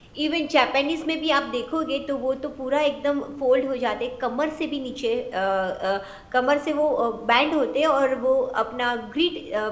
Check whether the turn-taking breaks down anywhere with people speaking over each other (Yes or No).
No